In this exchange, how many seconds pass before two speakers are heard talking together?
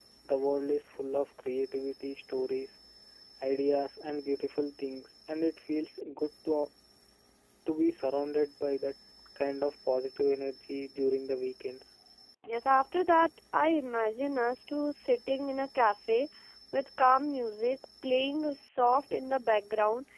none

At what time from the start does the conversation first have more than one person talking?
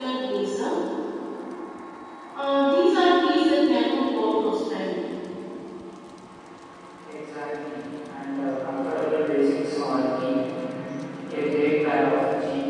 none

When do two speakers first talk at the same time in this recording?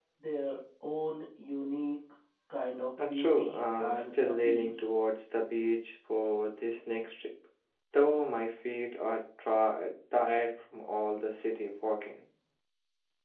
3 s

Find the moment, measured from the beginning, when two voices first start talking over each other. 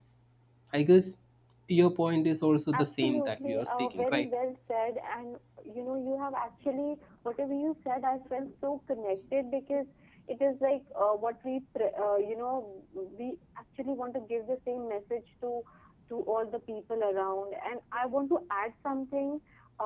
3 s

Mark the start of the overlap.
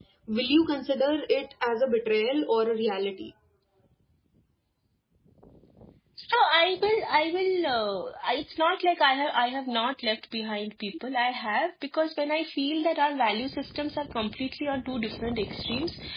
none

